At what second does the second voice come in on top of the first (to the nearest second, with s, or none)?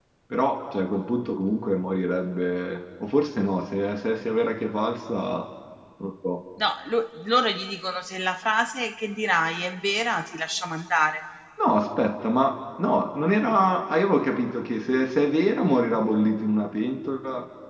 none